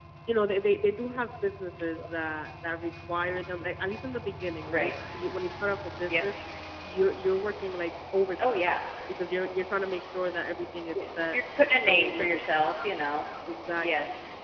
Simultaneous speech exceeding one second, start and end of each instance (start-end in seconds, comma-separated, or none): 11.2-12.4